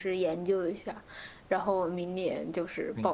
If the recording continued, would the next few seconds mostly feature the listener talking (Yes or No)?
Yes